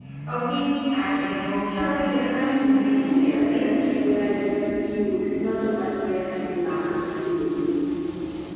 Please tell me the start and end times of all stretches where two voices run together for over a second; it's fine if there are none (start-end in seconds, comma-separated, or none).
1.6-3.6